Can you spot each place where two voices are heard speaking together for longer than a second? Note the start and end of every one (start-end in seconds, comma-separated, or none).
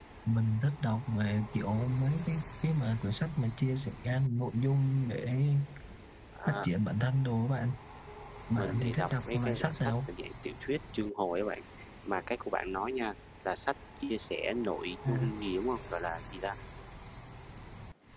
8.6-10.1